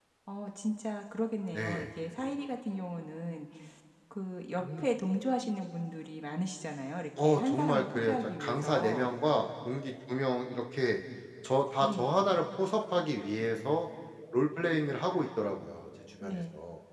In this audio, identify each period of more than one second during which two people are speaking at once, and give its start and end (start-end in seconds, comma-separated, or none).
7.2-9.1